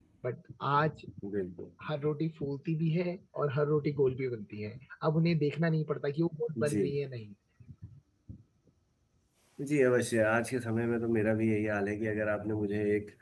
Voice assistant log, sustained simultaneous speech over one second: none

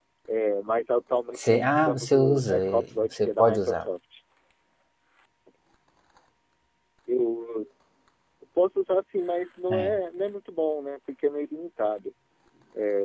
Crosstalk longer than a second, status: present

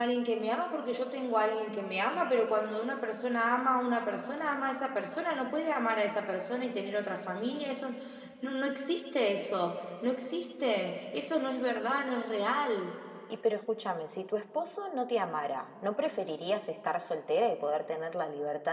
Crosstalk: none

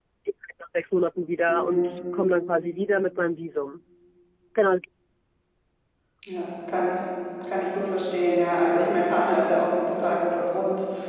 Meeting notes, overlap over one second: none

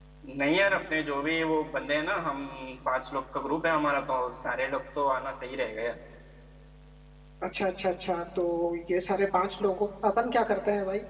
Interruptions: none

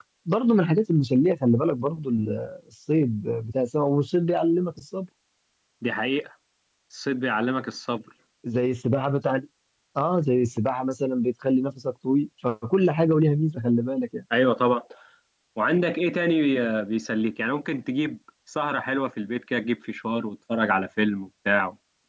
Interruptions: none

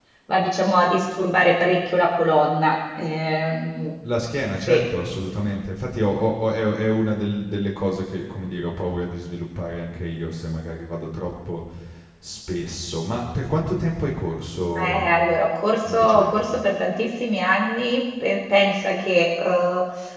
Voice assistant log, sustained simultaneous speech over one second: none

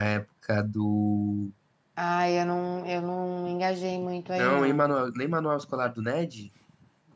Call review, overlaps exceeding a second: none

